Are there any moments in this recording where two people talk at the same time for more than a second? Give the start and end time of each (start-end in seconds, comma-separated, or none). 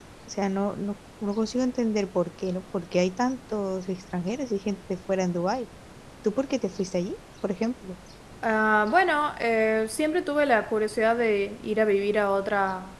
none